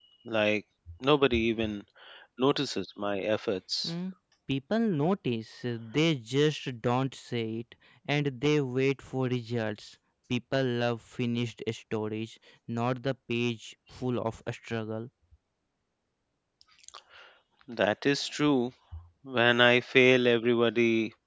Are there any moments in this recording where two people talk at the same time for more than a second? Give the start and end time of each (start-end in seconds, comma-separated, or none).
none